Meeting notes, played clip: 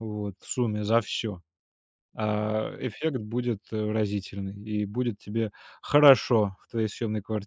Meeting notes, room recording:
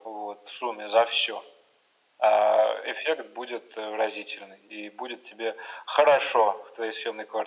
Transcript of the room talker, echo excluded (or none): none